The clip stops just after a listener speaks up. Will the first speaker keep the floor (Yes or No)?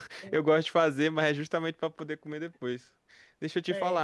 Yes